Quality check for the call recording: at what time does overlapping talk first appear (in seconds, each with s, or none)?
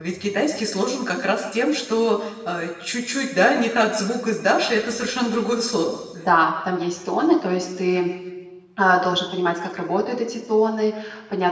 none